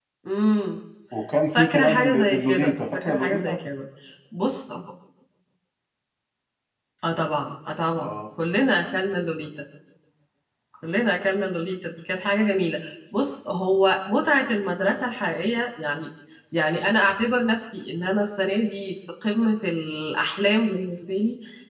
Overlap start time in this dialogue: 2 s

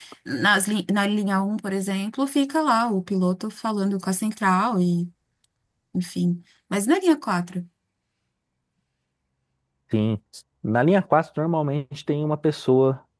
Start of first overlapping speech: none

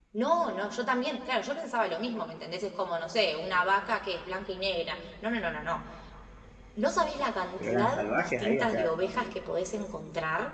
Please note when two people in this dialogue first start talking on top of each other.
8 s

